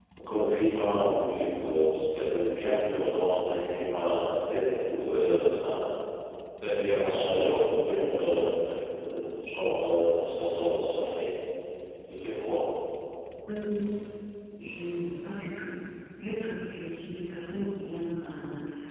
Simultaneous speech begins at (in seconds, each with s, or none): none